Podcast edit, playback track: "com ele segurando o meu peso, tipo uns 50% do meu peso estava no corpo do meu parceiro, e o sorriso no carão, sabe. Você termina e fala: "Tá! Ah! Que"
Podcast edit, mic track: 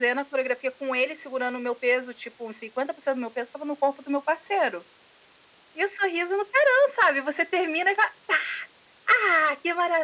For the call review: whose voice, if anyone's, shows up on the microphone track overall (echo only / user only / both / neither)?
echo only